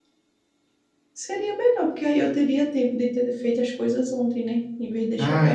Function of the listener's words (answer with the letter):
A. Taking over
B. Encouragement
A